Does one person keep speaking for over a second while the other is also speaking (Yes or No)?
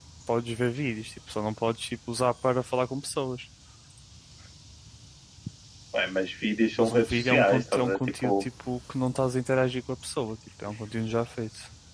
Yes